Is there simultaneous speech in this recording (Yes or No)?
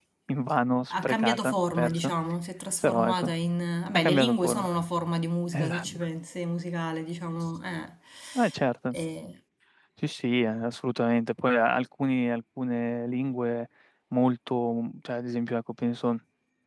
Yes